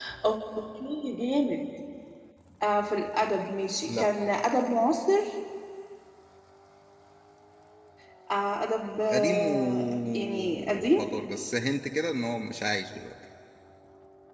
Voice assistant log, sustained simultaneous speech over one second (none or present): present